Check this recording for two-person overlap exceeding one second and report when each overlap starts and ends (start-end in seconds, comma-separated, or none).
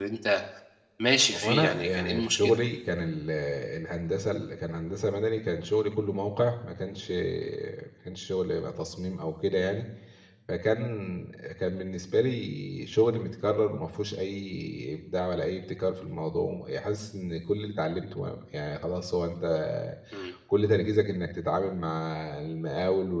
1.3-2.6